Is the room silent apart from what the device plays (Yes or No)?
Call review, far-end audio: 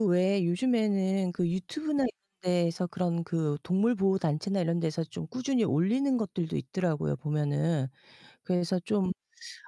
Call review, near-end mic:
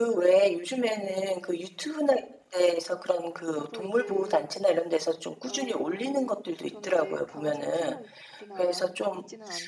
No